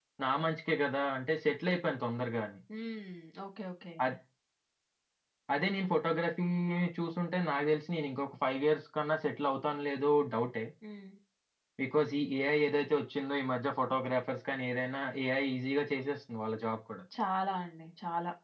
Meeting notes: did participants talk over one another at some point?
No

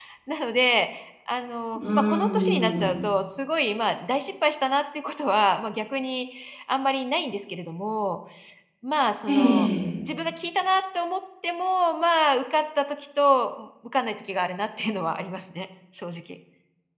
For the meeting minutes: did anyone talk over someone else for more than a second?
Yes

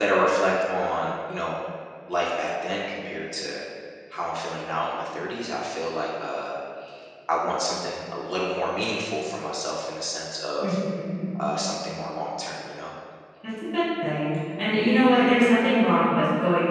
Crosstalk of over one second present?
No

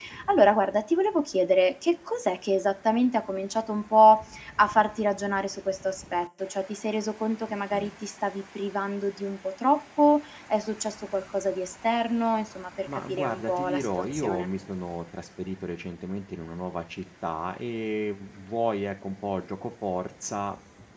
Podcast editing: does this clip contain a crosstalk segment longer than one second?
Yes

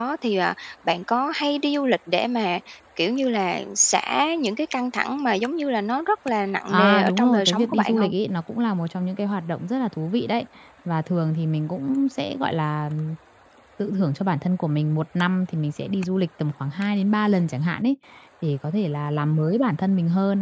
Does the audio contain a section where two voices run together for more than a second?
Yes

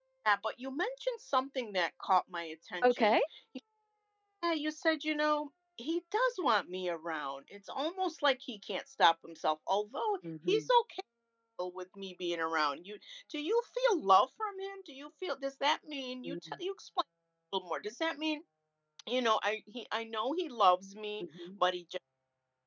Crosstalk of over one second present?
No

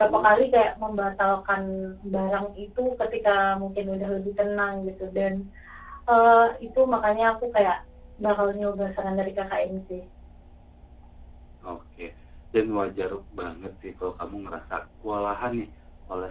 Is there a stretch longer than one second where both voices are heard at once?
No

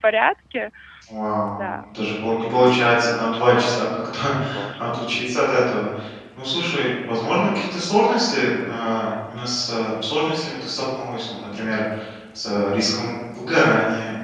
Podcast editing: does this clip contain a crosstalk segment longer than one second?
Yes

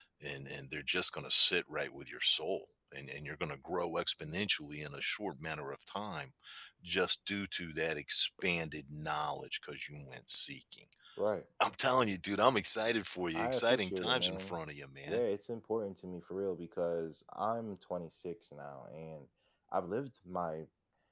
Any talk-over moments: Yes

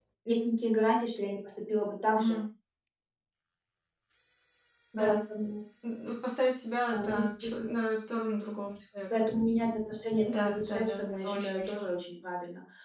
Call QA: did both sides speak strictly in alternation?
No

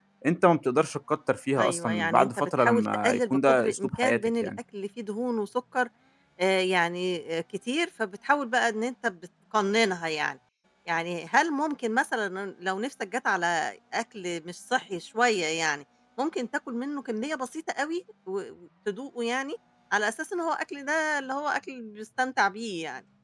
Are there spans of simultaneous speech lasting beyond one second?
Yes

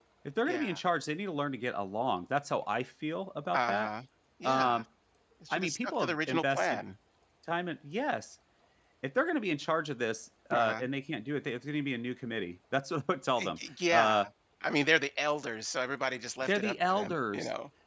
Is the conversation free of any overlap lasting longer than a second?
No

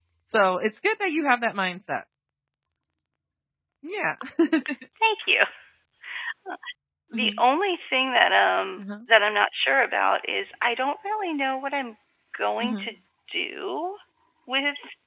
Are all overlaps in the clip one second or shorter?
Yes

